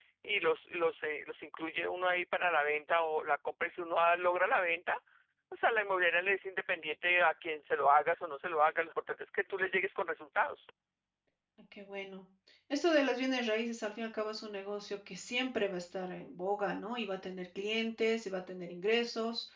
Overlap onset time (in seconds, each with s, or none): none